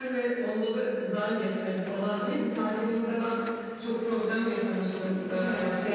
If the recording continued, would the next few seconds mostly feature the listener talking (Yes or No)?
No